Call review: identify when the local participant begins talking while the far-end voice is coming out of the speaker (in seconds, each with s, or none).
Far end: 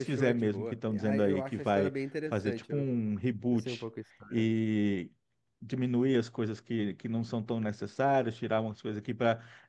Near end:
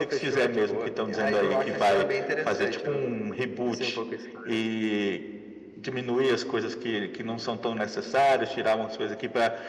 none